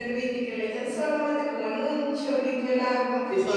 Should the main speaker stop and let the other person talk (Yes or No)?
Yes